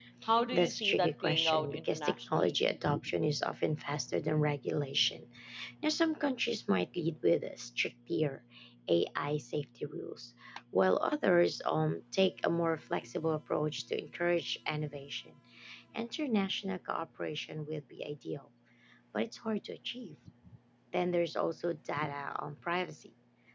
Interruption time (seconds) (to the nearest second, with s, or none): 1 s